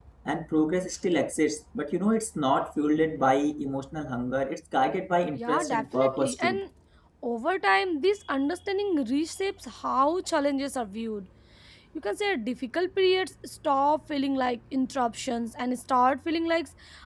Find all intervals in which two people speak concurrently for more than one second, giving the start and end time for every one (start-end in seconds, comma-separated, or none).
5.3-6.6